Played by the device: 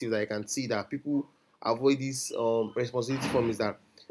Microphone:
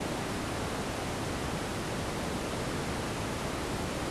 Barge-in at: none

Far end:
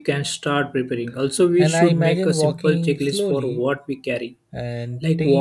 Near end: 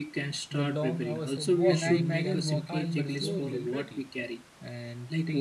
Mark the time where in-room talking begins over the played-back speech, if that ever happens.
0.5 s

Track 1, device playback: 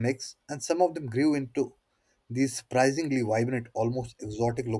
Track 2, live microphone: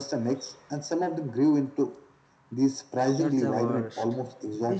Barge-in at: 3.1 s

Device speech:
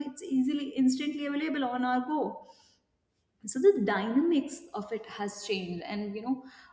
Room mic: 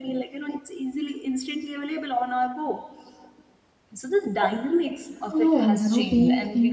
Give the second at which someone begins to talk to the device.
5.3 s

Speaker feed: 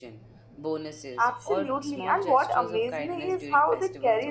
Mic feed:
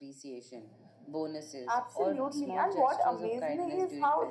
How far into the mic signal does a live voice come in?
none

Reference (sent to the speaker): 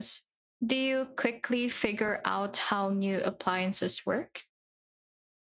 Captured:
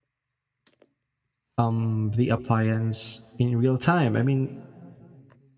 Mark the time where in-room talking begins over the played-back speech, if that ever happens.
1.6 s

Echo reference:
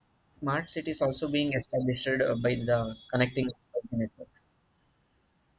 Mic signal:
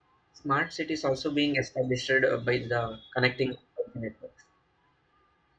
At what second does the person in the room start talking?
none

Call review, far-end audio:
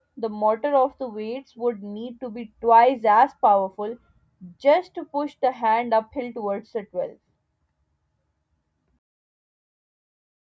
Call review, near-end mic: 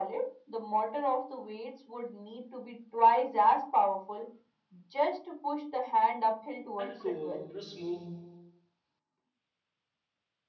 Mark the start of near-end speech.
6.8 s

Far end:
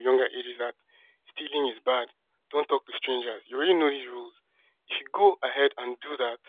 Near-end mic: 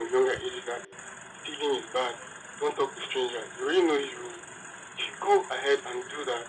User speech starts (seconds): none

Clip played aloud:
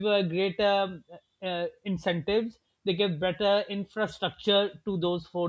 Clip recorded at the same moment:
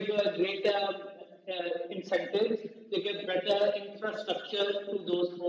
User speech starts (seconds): none

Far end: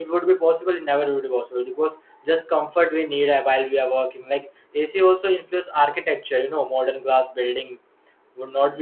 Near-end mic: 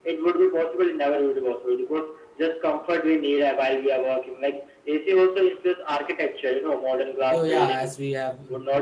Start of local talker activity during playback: 7.3 s

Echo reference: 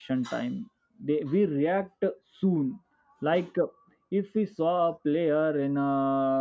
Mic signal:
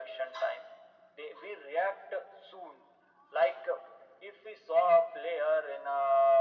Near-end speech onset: none

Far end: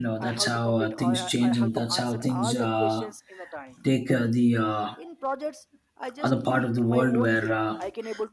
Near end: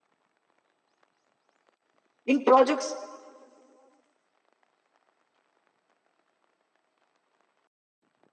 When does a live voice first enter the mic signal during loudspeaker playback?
2.3 s

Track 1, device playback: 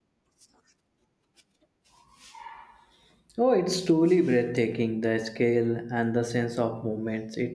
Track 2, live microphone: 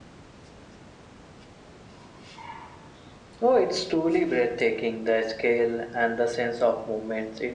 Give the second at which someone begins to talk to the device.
none

